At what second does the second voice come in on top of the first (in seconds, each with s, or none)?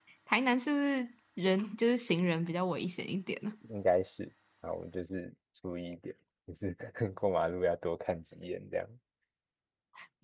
none